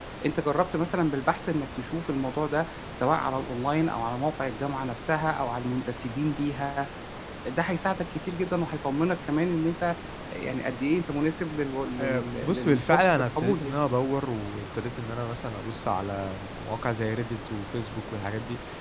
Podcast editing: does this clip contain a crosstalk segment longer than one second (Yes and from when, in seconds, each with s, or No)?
Yes, from 12.0 s